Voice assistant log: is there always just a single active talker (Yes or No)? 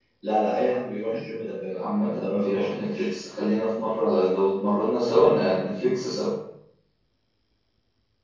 No